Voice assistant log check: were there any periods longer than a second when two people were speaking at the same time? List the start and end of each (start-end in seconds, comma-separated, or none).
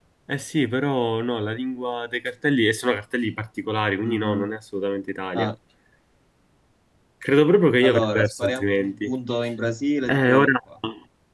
7.8-9.1